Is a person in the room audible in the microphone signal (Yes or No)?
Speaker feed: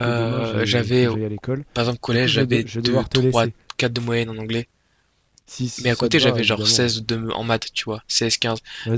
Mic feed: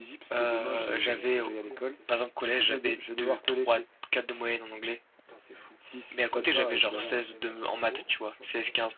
Yes